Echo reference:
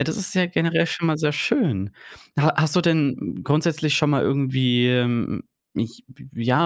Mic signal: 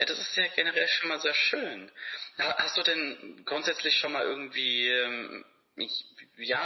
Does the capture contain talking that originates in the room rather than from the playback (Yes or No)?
No